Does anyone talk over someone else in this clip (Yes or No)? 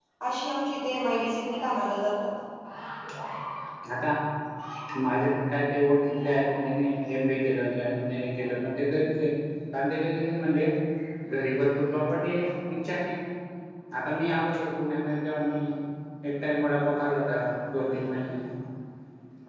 No